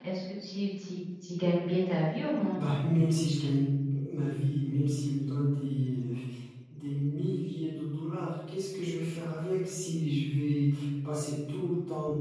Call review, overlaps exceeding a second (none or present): none